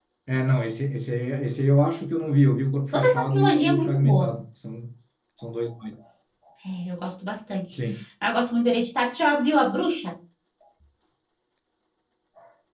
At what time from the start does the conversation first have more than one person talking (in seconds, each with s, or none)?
2.9 s